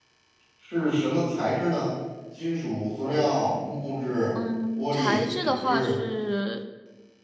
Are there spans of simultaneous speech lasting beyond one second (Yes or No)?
Yes